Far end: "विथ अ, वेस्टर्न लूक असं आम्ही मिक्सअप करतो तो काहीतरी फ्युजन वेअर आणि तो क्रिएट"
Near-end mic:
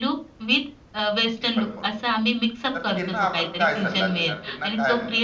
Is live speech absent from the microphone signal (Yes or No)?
No